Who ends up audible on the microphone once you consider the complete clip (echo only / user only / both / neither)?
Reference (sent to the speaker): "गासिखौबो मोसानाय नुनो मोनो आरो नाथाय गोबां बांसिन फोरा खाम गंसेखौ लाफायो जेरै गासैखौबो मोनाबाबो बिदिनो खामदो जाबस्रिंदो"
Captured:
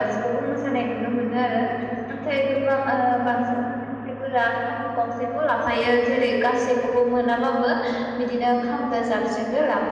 echo only